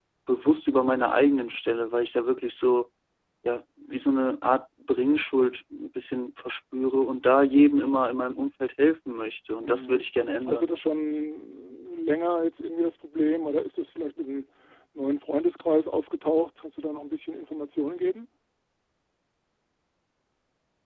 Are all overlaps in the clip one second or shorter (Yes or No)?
Yes